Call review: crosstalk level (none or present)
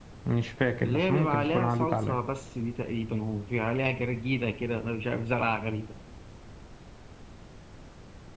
present